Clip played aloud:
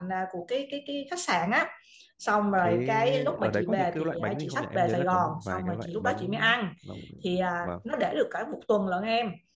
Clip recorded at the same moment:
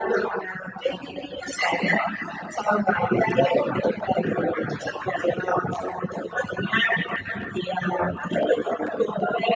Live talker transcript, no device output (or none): none